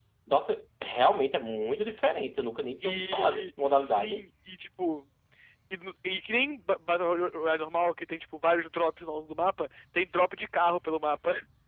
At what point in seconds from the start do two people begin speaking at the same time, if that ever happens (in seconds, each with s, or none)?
2.8 s